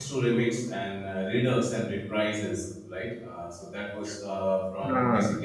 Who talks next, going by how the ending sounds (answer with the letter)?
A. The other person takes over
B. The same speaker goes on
B